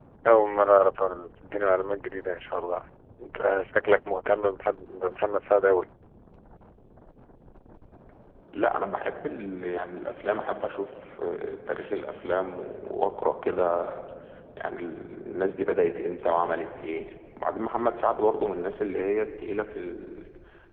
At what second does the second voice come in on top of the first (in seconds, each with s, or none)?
none